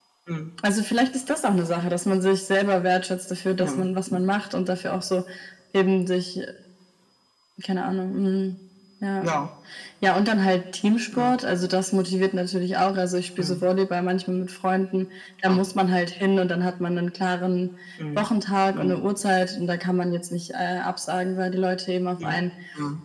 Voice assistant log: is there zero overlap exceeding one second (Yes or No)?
Yes